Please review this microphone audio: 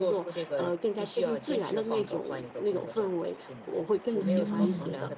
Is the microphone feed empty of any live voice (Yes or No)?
No